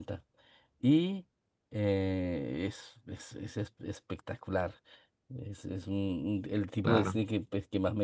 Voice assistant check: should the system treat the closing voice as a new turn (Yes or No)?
No